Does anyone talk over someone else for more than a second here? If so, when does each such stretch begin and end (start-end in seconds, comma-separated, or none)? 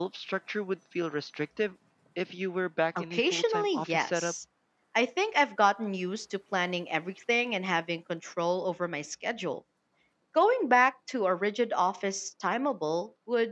3.0-4.3